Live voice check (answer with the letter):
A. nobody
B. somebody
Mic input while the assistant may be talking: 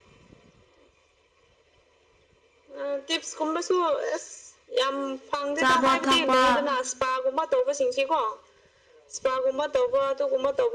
B